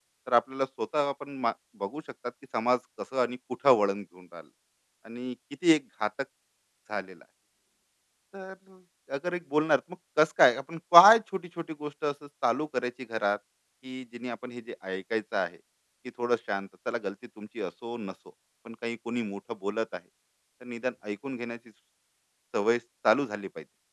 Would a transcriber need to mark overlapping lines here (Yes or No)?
No